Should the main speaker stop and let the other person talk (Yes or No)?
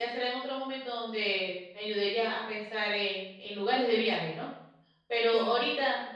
No